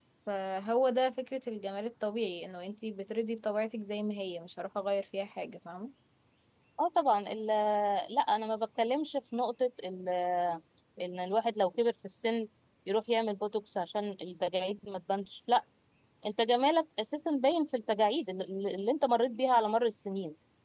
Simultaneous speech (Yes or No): No